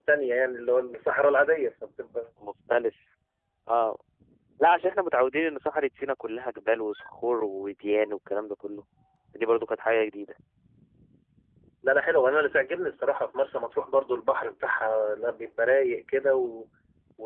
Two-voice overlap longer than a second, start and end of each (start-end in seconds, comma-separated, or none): none